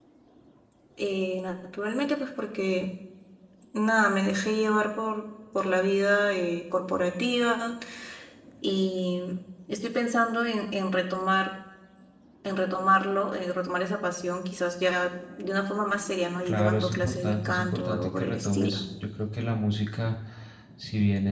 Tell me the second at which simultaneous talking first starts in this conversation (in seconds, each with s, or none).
16.4 s